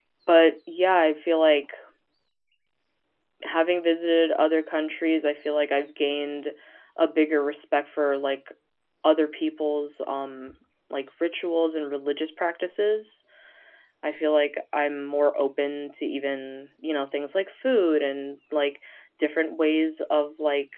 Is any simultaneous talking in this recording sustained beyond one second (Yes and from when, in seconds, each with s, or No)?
No